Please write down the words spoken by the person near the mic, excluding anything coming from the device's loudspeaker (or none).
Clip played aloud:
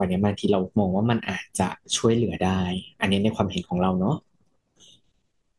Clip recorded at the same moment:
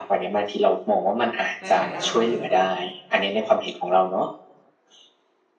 ในหลายๆด้าน